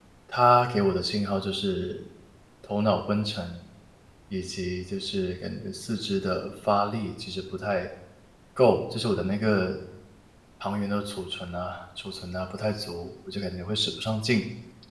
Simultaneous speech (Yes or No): No